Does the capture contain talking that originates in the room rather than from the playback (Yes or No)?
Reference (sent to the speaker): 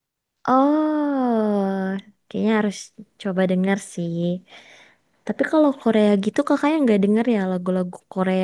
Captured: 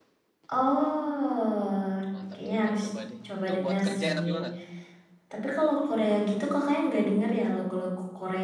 Yes